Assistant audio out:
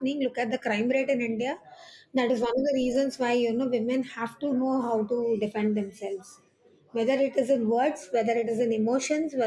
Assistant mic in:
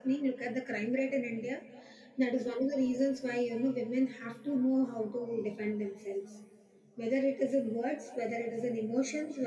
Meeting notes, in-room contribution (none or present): none